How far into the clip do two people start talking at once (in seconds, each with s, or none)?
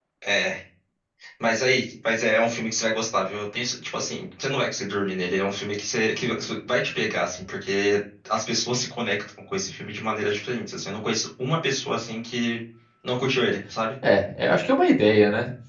none